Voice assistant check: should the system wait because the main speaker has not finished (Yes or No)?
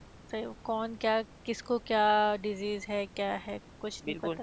No